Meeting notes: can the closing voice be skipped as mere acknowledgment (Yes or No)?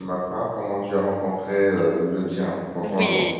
No